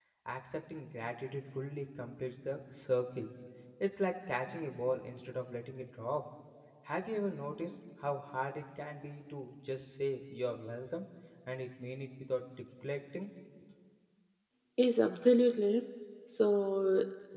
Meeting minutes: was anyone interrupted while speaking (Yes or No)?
No